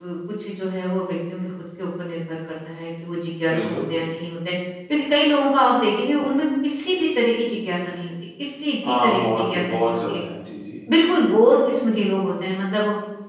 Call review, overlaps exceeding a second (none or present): present